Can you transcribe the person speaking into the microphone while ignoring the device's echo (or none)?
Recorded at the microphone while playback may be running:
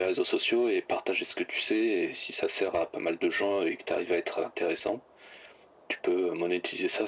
none